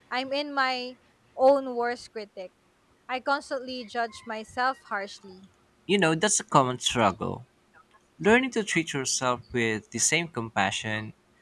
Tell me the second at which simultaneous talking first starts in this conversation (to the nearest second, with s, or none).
none